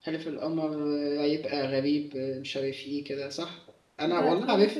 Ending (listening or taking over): taking over